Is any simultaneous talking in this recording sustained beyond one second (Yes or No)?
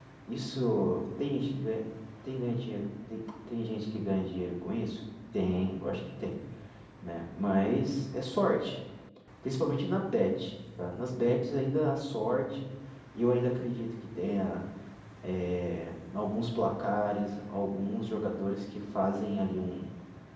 No